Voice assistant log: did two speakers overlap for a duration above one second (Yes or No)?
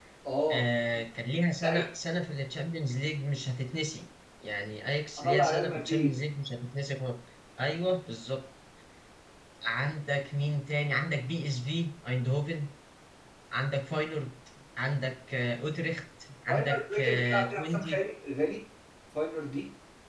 Yes